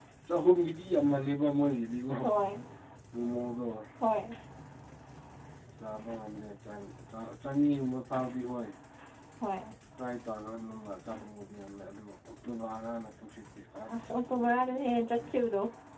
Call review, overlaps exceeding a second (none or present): present